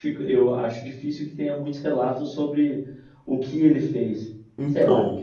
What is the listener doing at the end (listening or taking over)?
taking over